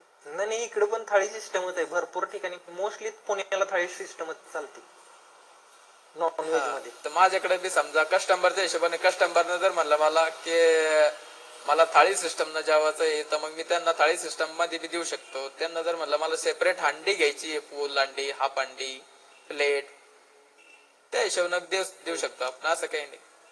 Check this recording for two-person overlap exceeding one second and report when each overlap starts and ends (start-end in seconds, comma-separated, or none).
none